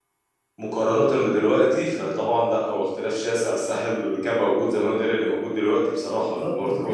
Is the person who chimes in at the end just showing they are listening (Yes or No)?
No